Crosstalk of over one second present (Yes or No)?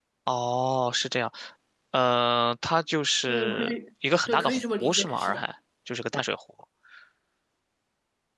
Yes